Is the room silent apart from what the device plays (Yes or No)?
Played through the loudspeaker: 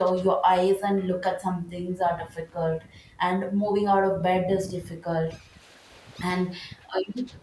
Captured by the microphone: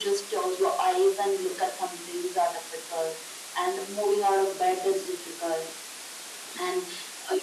Yes